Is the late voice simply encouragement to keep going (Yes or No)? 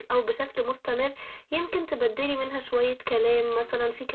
Yes